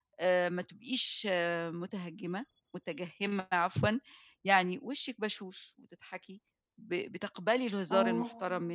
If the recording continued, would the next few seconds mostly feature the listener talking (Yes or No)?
No